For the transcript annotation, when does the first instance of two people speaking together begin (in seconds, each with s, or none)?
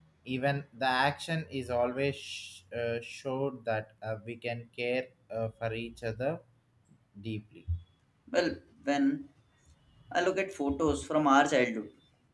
none